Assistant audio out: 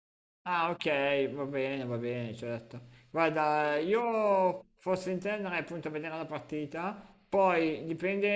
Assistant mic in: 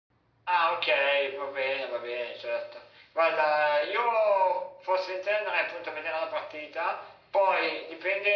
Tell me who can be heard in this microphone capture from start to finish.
echo only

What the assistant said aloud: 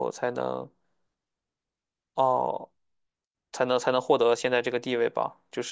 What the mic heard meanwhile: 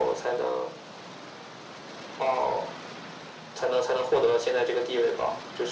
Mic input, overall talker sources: echo only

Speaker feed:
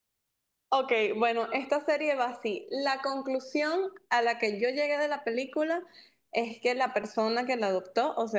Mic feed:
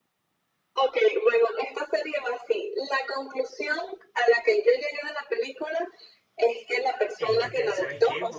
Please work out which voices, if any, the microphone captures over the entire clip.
both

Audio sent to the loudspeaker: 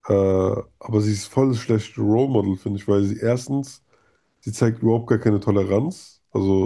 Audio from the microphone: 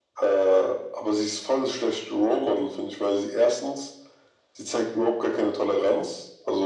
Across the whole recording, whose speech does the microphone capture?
echo only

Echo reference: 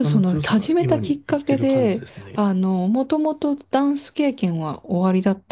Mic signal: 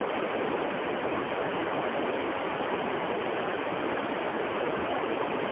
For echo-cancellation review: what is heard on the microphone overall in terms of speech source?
neither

